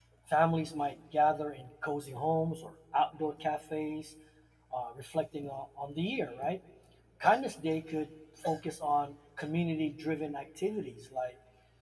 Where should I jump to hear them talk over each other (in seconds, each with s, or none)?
none